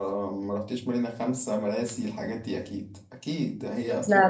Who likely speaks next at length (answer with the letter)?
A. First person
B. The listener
A